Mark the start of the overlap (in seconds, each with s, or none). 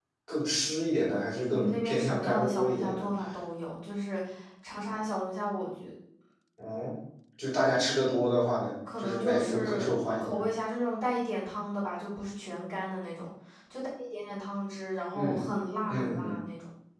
1.5 s